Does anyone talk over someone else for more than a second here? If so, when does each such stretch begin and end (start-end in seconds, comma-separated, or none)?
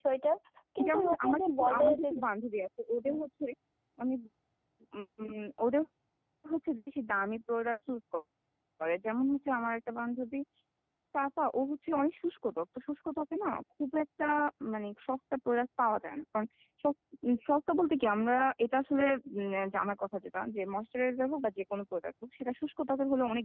0.9-2.1